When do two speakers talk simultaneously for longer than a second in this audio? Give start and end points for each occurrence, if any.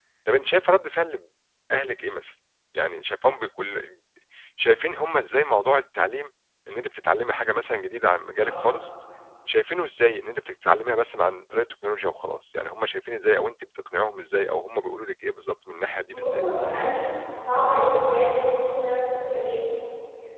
none

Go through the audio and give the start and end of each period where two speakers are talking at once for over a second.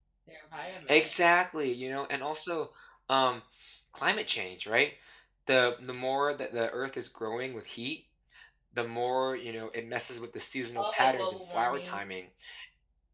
10.8-12.1

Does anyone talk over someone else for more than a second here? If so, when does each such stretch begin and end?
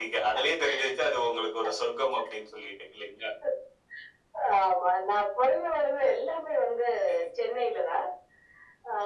none

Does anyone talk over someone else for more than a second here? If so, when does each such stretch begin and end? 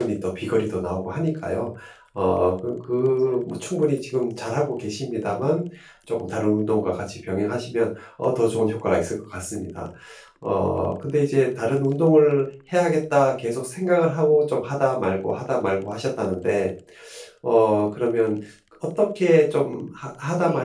none

